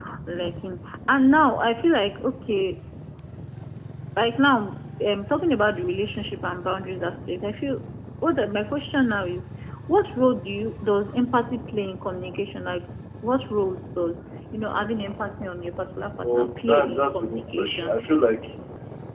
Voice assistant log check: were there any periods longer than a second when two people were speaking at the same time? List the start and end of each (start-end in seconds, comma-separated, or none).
16.2-18.0